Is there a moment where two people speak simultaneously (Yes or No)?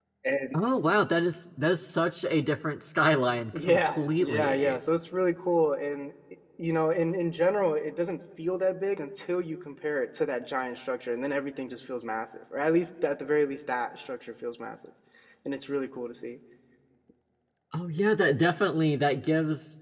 Yes